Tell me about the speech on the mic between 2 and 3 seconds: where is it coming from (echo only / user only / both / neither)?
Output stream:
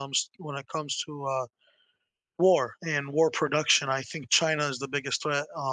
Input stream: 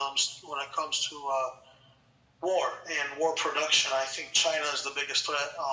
echo only